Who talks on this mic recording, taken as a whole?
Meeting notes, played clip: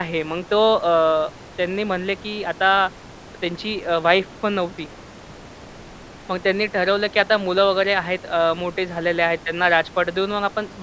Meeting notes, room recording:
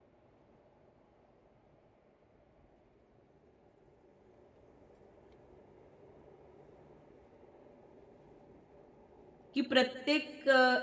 user only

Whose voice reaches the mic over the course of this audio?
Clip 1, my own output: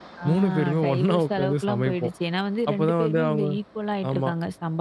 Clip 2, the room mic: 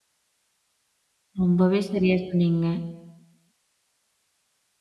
user only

